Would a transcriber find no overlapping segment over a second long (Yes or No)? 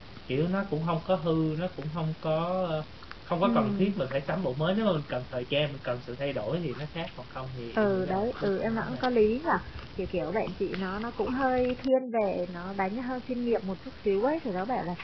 No